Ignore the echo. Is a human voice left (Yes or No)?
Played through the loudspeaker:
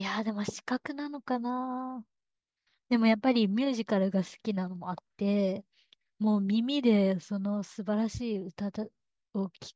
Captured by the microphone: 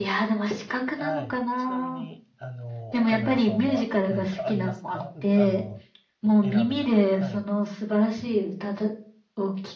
Yes